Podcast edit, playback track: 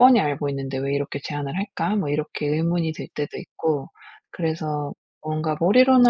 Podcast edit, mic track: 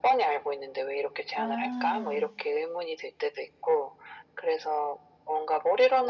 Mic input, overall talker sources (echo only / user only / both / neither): both